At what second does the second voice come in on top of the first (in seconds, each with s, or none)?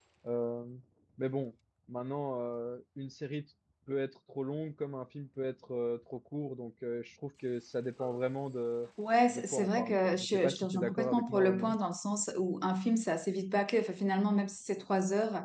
9.3 s